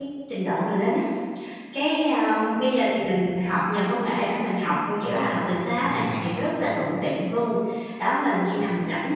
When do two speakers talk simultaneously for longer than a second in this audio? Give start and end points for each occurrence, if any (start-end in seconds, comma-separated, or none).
5.0-6.5